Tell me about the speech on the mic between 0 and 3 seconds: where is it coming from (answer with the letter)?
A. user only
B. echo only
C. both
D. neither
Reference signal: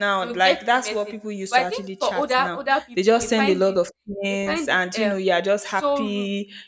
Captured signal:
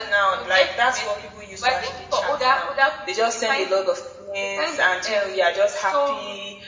B